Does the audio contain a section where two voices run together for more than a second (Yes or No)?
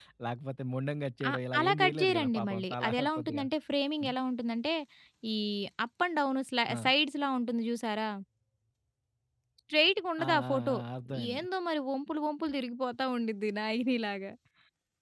Yes